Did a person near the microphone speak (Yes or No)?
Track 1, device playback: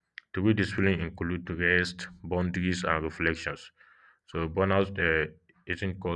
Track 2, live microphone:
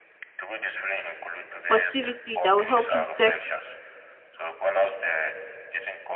Yes